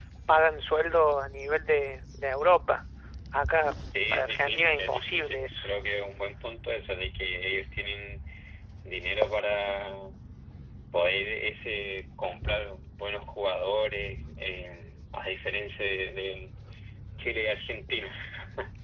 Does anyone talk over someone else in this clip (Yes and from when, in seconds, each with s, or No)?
Yes, from 4.1 s